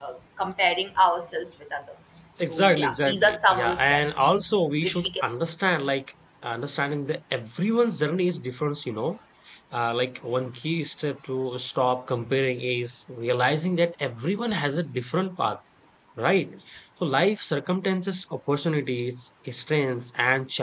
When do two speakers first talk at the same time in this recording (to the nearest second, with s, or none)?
2 s